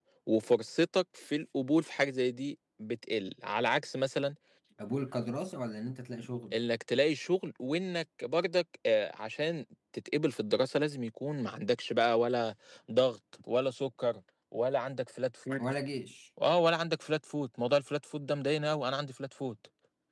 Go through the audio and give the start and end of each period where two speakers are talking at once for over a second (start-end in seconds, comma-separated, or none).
none